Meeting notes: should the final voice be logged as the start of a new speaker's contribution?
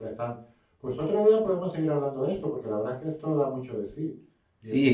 Yes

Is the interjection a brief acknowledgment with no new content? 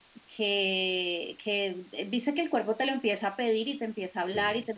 Yes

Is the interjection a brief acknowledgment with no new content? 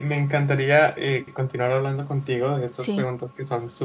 Yes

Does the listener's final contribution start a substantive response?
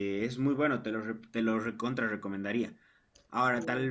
No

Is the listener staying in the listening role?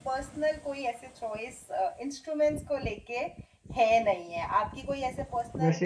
No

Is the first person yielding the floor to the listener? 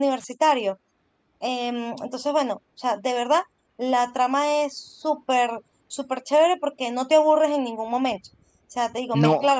No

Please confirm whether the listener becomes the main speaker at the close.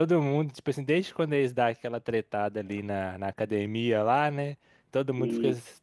No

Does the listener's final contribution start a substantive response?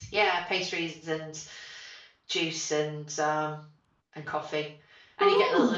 No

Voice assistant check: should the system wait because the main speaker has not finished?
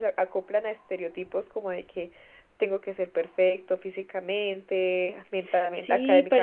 No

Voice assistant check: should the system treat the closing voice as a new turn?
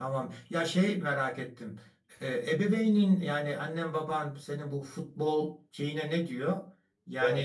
No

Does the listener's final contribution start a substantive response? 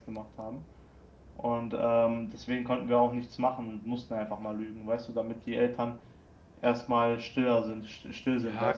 Yes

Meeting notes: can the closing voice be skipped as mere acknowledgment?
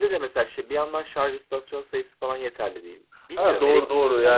No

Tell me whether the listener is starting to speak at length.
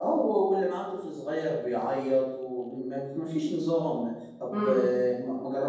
No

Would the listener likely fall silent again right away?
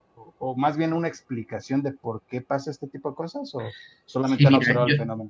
No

